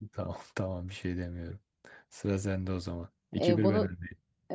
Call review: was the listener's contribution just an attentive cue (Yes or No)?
No